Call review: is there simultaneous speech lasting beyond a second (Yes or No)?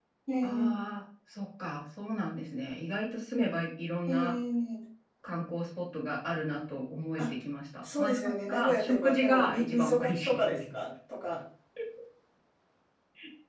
Yes